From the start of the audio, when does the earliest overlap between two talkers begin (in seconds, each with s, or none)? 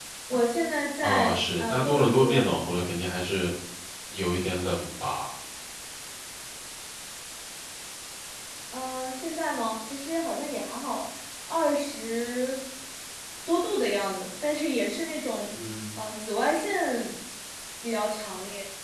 1.0 s